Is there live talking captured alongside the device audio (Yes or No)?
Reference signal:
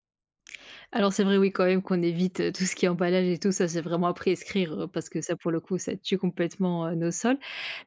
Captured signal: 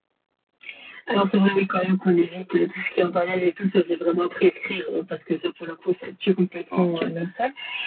Yes